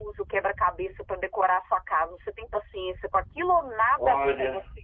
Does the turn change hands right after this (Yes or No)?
Yes